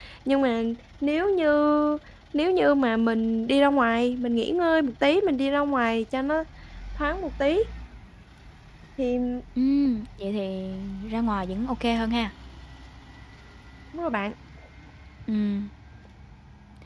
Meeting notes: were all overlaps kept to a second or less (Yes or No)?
Yes